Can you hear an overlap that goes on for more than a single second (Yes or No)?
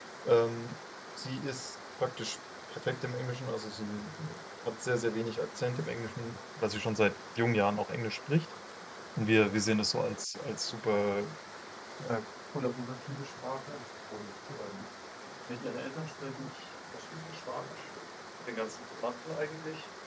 No